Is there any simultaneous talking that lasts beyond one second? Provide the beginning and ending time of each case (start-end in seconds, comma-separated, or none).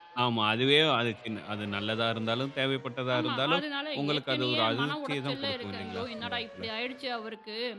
4.0-6.6